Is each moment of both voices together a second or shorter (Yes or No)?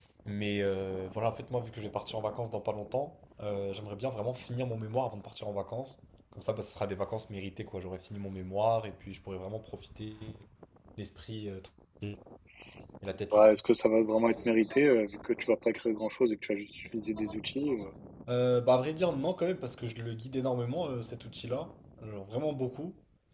Yes